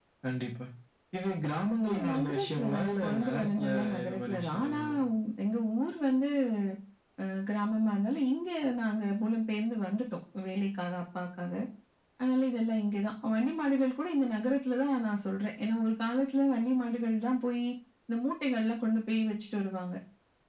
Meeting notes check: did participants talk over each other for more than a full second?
Yes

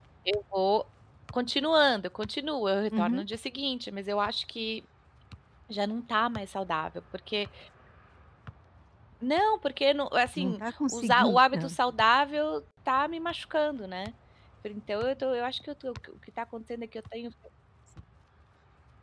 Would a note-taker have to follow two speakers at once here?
Yes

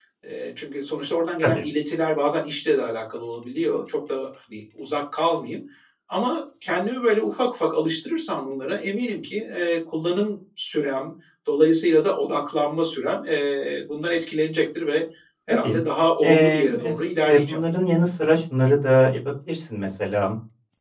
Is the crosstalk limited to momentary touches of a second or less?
No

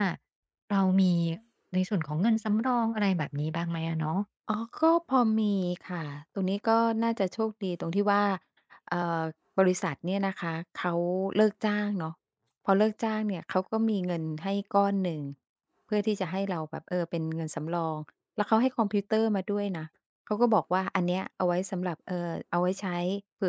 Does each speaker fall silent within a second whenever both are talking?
Yes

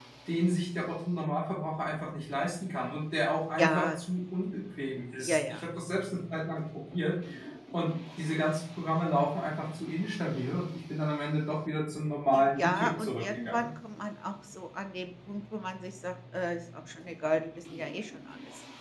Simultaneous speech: Yes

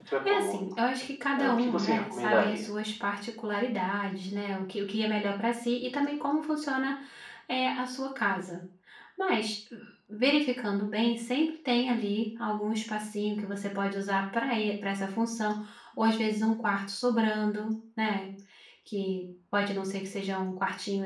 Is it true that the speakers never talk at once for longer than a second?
No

